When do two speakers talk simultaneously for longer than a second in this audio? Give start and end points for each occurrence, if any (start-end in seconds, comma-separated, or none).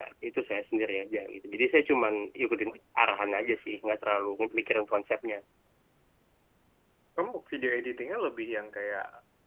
none